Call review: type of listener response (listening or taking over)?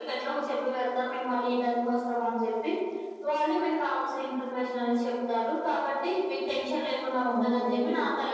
listening